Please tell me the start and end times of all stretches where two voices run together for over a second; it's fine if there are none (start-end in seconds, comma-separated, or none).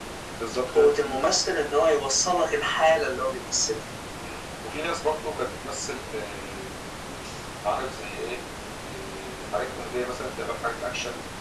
none